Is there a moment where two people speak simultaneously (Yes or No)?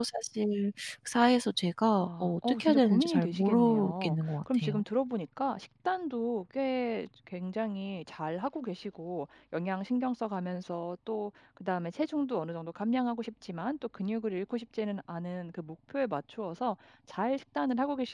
Yes